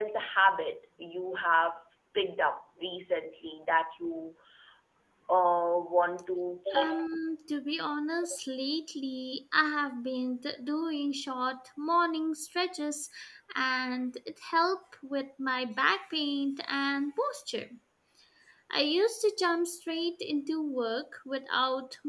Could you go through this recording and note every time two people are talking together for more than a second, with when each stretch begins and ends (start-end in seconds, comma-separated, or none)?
none